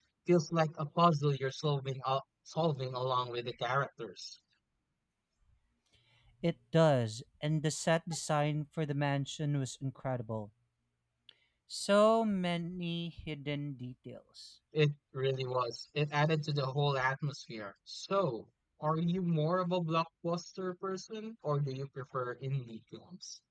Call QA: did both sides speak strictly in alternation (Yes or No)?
Yes